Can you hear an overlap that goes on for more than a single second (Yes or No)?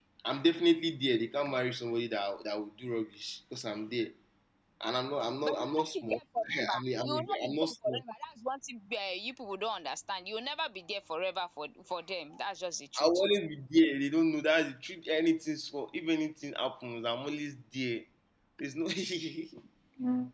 Yes